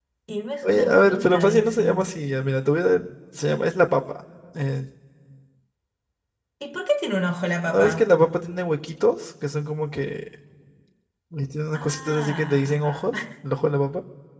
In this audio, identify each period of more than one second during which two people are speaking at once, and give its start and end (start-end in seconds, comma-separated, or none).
0.6-2.1, 11.7-13.1